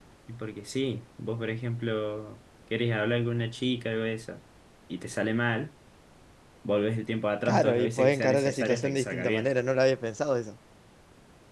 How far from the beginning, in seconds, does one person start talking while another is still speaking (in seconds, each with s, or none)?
7.5 s